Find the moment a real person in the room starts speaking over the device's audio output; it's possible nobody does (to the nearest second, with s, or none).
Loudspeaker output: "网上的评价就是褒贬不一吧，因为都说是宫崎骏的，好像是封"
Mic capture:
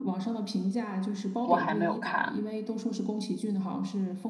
1 s